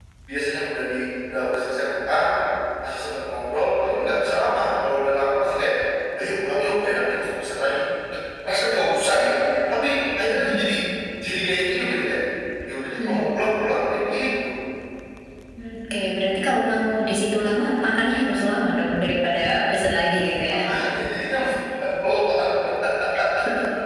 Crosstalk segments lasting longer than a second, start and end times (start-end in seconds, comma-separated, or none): none